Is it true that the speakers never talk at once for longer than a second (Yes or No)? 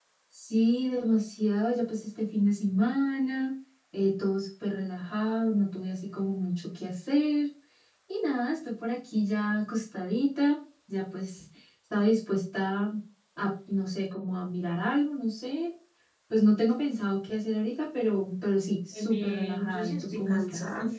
No